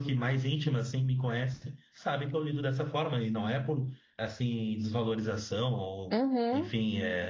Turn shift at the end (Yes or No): No